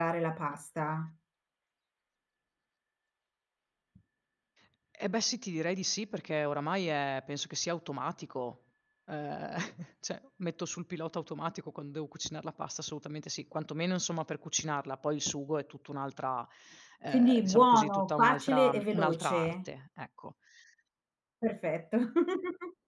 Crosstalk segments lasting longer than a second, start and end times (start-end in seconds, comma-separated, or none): 17.1-19.5